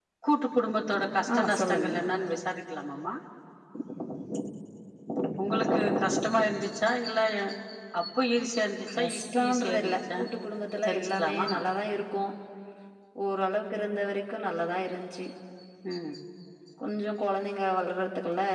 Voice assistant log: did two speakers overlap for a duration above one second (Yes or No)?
Yes